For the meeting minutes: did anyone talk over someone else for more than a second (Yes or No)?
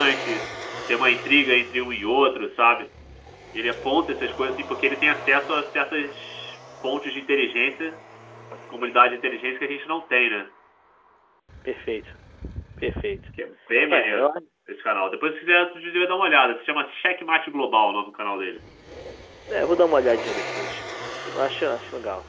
No